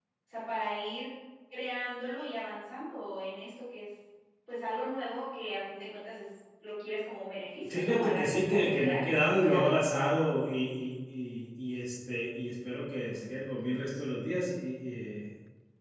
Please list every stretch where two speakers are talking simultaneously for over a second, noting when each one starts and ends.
7.6-9.7

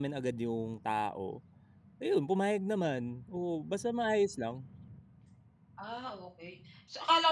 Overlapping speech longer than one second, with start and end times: none

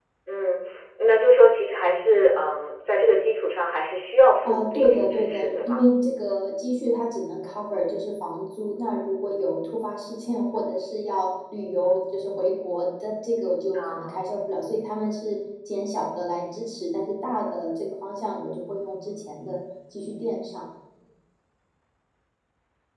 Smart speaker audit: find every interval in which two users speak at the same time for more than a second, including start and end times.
4.4-5.8

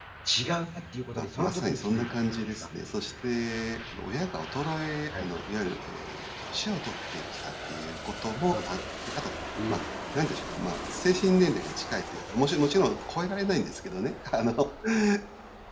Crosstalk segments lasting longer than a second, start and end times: 1.2-2.5

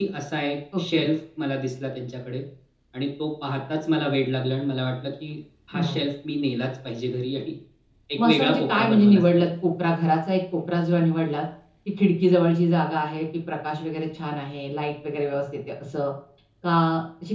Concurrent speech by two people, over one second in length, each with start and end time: 8.2-9.5

